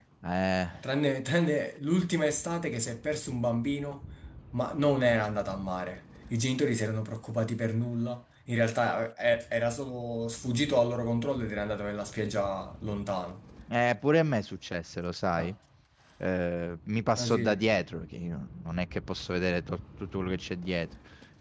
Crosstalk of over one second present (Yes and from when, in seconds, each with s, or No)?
No